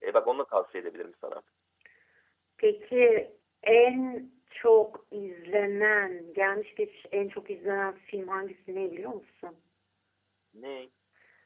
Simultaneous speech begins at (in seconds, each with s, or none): none